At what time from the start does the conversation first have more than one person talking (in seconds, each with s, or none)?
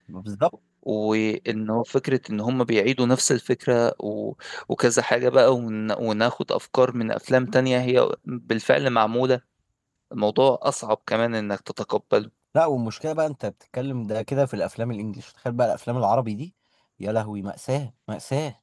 none